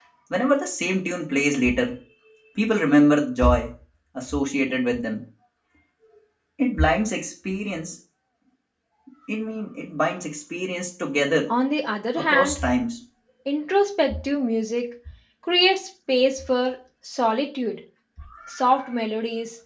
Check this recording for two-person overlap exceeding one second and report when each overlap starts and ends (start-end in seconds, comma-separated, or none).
none